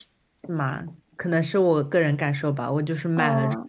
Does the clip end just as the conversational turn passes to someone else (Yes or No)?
No